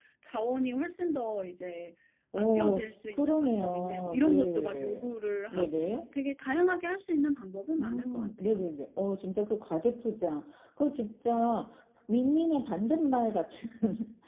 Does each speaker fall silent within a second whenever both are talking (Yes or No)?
No